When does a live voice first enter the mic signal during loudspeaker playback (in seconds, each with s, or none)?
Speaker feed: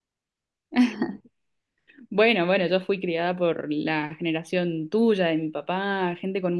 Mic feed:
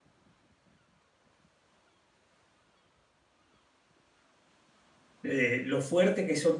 5.2 s